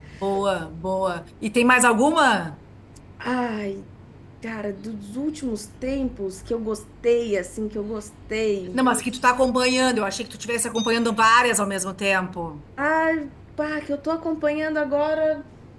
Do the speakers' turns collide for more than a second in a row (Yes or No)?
No